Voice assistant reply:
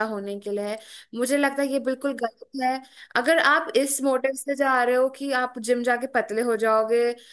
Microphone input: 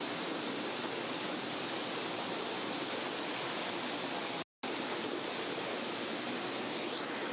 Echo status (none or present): none